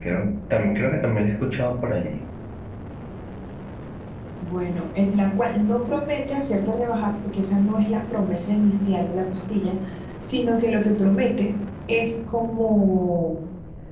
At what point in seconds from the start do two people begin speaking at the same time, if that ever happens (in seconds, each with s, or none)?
none